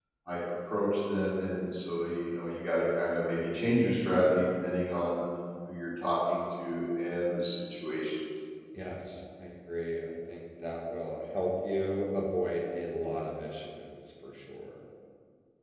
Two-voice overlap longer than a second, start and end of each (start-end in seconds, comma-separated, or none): none